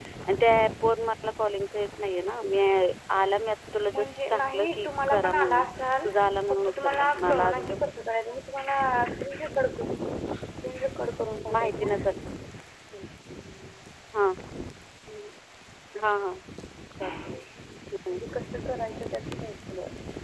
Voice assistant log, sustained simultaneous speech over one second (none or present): present